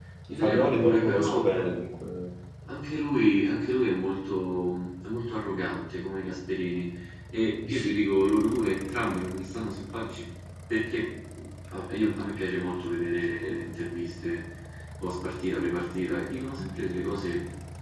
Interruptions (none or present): present